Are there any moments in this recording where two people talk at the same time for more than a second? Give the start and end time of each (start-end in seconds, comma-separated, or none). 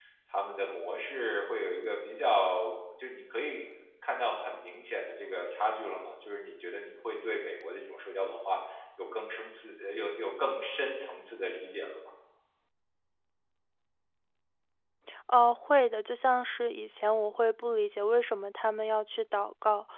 none